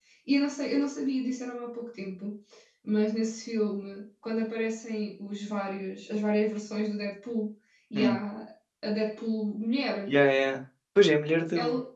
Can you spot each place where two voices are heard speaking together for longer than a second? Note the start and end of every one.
none

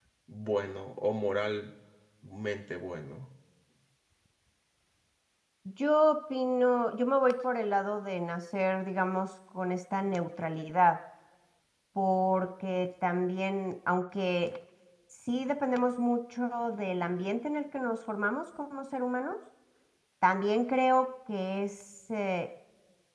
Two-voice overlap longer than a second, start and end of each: none

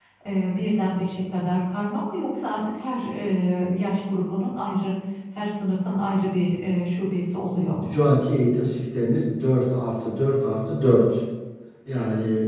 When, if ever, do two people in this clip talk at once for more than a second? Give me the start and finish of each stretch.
none

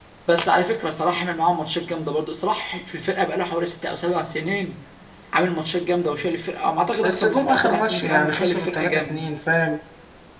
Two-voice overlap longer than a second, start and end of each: 7.0-9.2

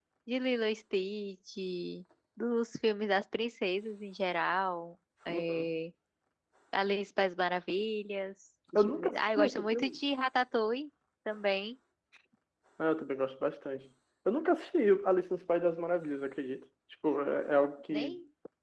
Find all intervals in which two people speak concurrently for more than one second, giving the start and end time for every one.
8.8-10.0

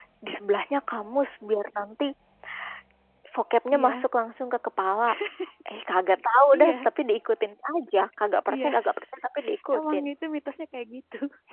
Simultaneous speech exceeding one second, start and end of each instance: none

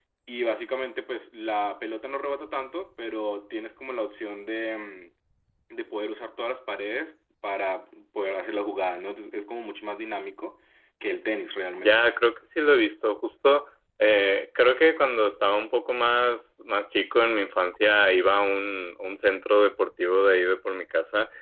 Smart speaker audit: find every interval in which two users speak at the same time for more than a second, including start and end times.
none

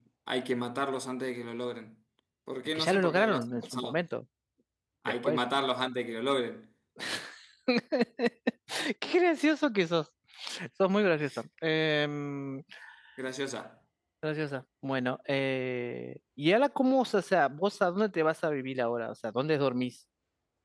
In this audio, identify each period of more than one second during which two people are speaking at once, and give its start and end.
2.8-4.0

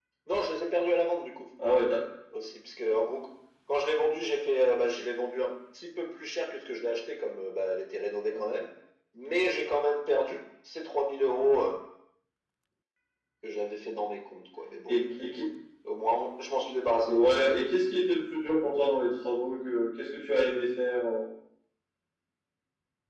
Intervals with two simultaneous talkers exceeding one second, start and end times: none

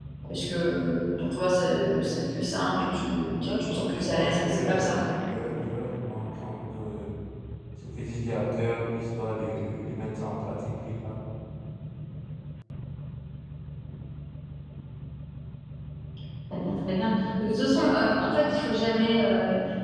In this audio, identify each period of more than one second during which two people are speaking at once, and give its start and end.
3.4-5.0

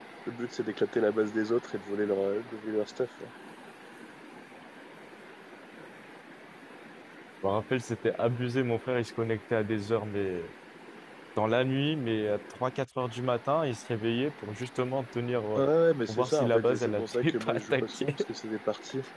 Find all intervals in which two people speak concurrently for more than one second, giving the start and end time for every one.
16.1-18.1

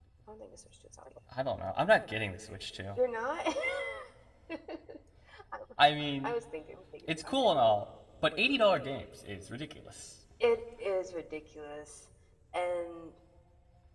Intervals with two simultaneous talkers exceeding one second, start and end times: none

